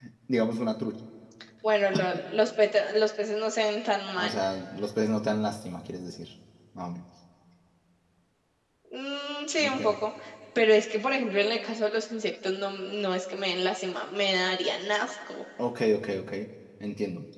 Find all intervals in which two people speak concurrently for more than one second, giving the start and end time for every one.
none

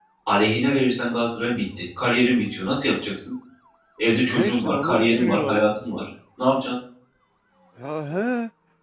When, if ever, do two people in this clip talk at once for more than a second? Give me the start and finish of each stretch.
4.3-5.6

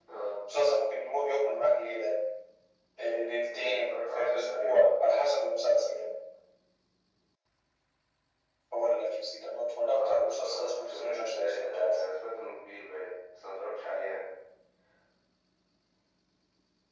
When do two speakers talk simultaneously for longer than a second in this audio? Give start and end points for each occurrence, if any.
3.5-4.8, 9.8-12.0

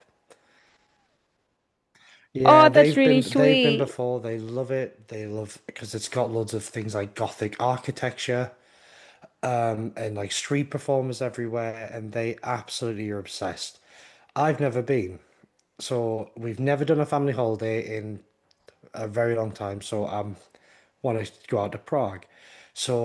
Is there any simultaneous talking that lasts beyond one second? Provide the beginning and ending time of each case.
2.5-3.9

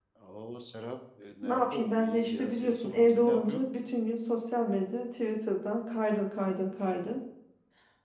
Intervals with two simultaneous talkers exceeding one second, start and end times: 1.4-3.7

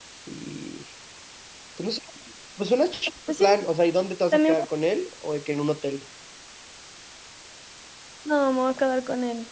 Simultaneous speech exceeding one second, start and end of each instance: none

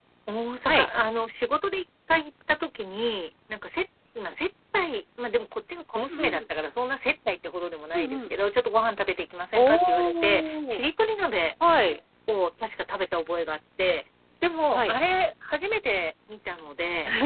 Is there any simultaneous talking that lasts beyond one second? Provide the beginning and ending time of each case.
9.5-10.8

